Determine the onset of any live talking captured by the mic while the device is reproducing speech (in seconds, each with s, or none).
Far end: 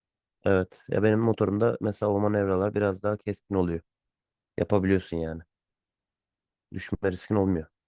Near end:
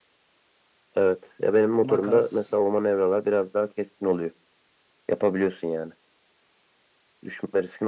1.8 s